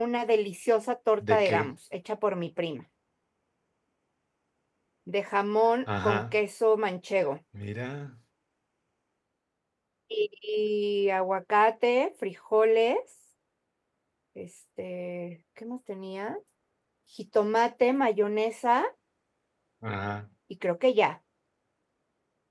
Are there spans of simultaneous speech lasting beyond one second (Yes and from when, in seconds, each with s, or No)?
No